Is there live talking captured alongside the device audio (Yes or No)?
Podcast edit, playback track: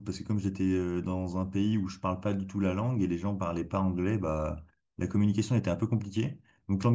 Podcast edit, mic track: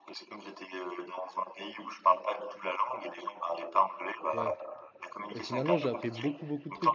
Yes